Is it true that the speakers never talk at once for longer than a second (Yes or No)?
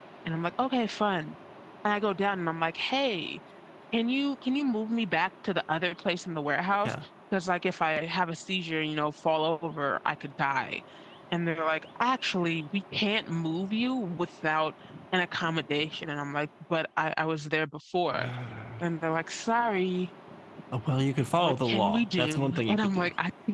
No